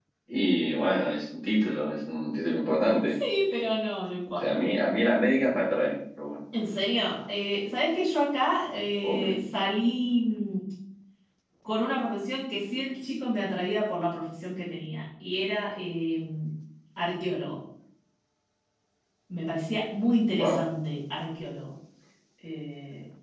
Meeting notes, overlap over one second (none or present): none